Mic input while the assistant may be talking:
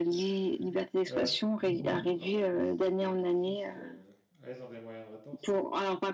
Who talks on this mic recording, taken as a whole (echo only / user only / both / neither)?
both